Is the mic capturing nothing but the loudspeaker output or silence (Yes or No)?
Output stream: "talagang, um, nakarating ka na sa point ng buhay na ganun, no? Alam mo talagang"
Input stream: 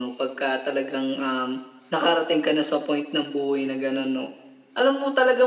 Yes